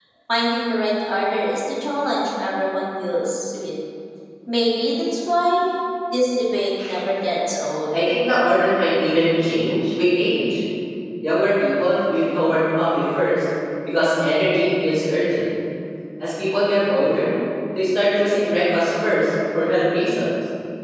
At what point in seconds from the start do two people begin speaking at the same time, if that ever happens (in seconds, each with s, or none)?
none